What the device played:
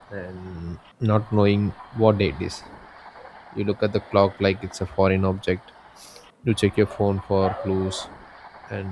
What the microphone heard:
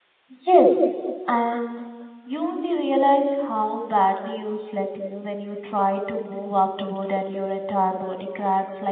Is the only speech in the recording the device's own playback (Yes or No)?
No